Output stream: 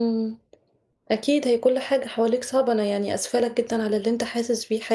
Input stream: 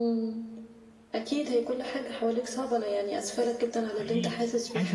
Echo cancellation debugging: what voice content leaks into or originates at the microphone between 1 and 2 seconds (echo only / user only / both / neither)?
echo only